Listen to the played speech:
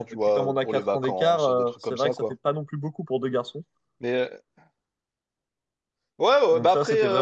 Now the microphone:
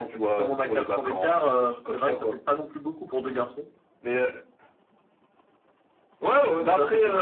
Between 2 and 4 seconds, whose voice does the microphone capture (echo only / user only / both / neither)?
echo only